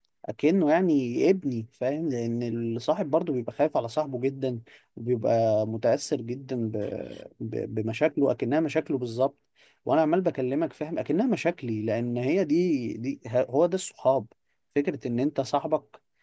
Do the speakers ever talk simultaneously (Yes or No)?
No